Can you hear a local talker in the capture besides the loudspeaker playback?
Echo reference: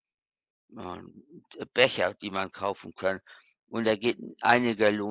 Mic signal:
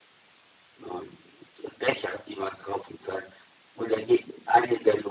No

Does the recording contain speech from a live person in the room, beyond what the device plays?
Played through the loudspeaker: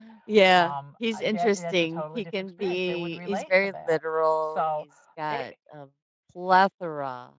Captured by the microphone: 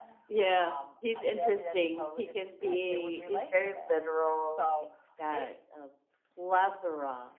No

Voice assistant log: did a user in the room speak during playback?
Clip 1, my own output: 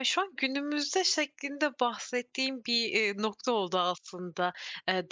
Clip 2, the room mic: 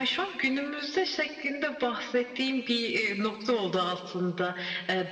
No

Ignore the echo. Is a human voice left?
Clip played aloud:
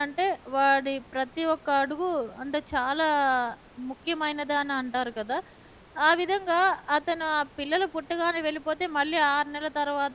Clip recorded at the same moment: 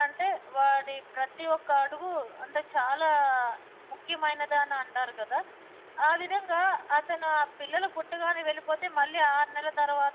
No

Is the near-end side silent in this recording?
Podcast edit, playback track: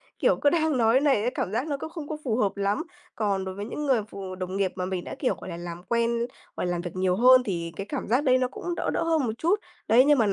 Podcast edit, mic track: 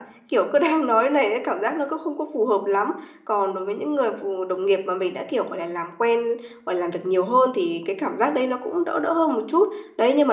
Yes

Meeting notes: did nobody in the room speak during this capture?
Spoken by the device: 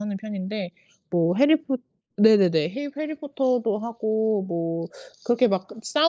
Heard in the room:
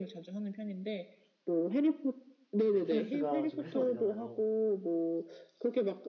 No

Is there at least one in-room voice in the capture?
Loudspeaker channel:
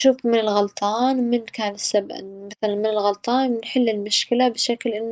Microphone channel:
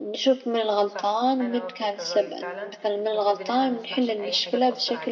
Yes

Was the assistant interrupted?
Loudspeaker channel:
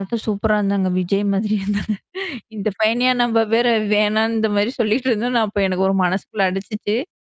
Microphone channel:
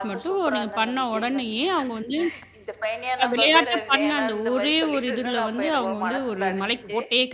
Yes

